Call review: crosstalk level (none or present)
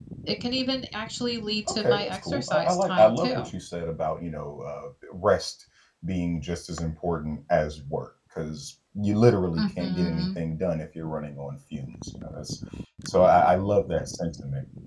present